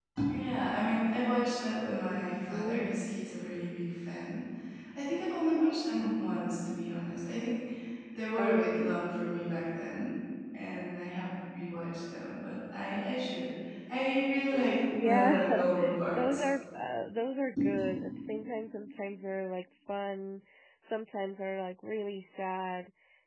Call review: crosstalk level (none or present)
present